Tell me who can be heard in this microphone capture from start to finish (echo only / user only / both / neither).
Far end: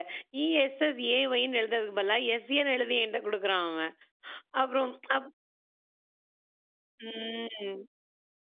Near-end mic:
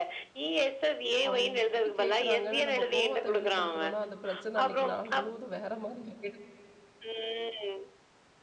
both